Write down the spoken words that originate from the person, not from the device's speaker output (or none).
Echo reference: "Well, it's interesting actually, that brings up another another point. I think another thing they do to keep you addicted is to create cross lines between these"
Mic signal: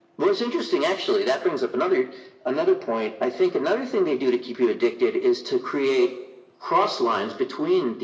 none